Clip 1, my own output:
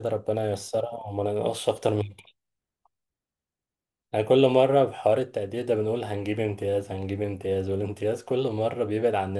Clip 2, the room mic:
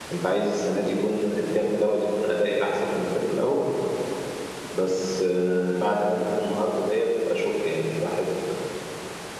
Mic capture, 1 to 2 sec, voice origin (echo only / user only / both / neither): user only